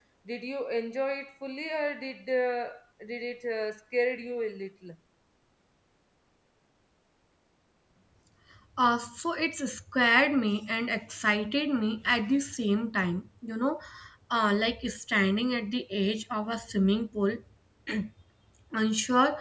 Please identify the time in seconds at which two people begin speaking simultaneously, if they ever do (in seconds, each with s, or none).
none